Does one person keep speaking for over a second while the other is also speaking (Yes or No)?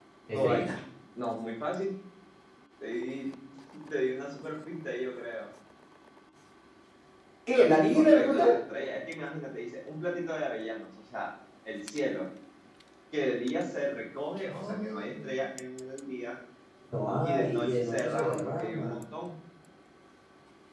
Yes